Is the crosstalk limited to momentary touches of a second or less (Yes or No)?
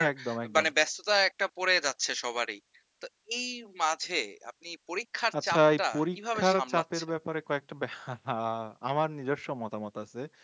No